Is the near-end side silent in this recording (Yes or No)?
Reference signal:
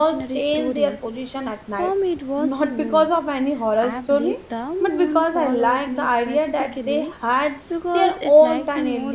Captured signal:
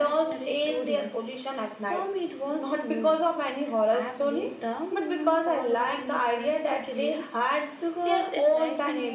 Yes